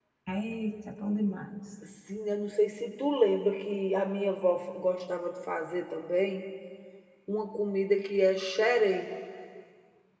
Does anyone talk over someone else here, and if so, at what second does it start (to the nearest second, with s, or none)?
none